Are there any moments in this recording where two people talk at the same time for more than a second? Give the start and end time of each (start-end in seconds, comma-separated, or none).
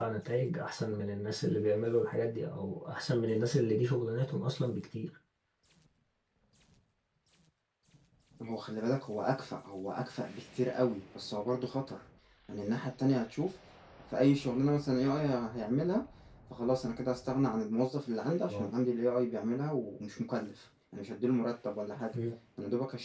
none